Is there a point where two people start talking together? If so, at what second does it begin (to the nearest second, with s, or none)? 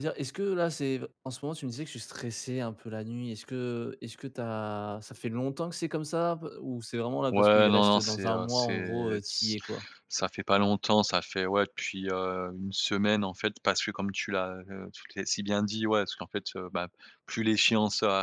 7 s